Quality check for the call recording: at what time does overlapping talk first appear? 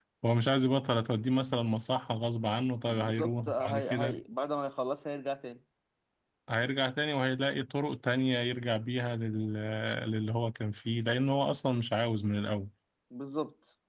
3 s

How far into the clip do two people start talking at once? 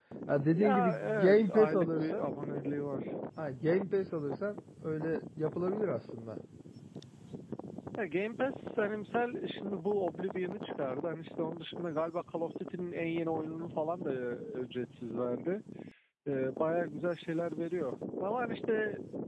1 s

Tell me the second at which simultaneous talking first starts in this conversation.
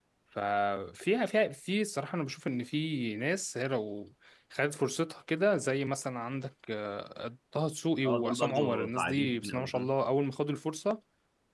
8 s

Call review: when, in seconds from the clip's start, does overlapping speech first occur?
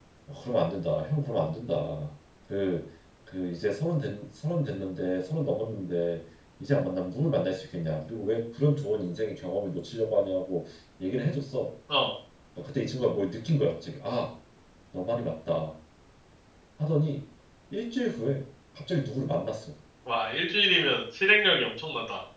none

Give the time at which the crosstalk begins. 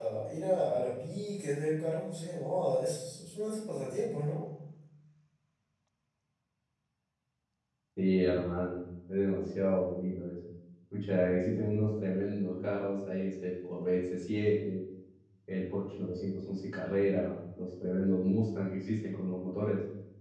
none

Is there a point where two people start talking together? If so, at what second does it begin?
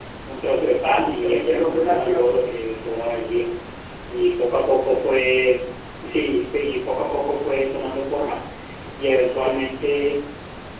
1 s

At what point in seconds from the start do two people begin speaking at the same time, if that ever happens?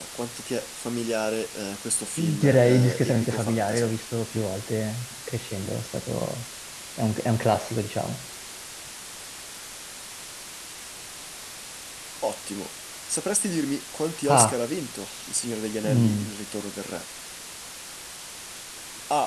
2 s

